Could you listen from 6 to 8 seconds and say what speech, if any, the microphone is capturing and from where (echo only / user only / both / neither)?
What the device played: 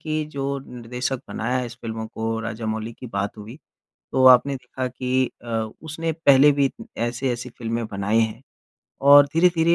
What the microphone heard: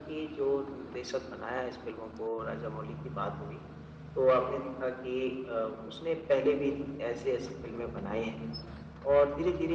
echo only